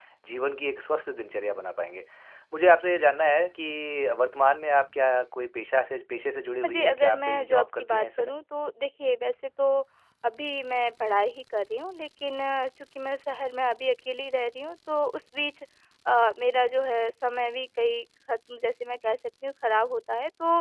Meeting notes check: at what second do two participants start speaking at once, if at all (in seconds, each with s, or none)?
6.6 s